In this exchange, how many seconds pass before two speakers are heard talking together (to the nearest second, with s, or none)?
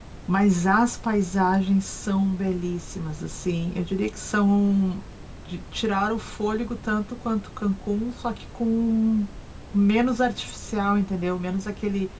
none